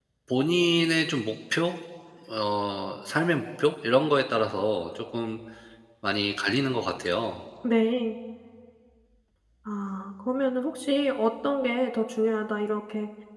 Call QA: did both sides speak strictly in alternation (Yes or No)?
Yes